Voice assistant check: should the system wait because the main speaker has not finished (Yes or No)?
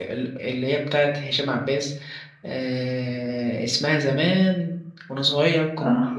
Yes